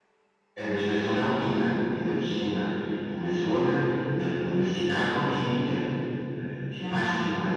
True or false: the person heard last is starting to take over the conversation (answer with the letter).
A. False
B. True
A